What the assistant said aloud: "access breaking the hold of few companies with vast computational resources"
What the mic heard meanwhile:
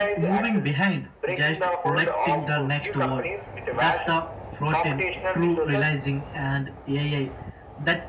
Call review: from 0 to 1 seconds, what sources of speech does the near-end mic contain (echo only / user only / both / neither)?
both